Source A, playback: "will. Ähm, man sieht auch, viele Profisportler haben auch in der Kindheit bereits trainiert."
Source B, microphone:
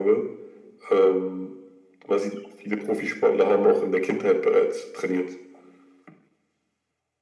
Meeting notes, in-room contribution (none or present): none